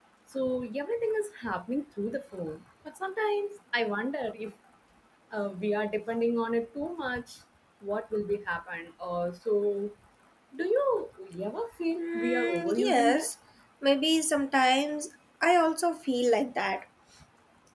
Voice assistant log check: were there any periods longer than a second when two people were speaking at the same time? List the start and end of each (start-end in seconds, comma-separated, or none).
12.0-13.3